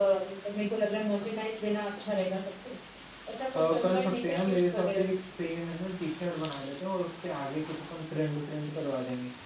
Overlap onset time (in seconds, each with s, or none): 3.6 s